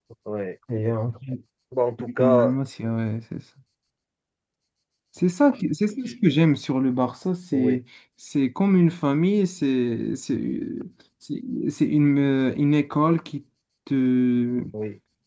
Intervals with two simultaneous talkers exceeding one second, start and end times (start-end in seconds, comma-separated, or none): none